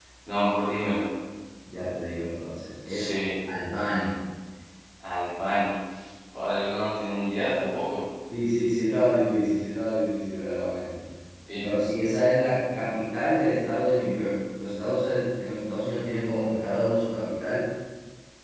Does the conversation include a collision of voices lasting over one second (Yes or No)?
No